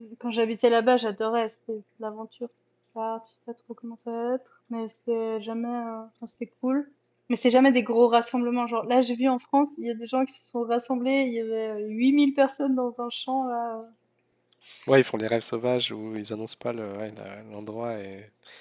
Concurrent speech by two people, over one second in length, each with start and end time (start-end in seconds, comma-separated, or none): none